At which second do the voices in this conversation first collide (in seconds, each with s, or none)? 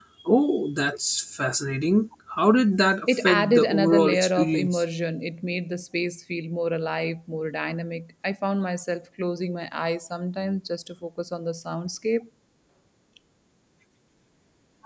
3.1 s